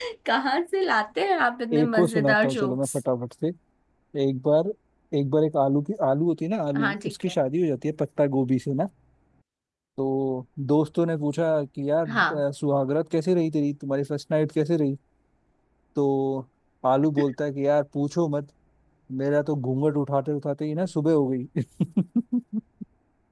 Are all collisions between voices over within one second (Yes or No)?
No